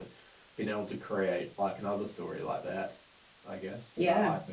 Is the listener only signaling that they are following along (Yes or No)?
No